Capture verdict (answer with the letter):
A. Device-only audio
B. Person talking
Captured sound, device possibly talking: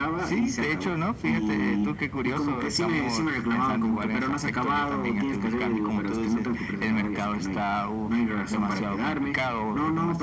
A